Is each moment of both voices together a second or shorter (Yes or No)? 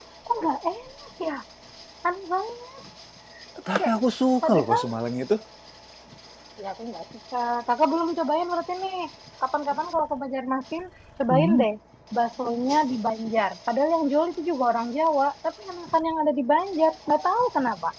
Yes